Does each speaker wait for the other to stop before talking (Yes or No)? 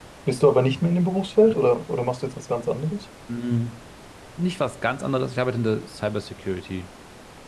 Yes